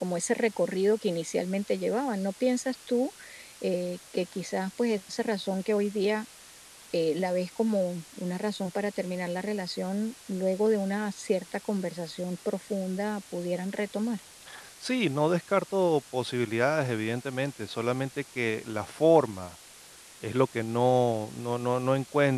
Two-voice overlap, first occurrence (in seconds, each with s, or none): none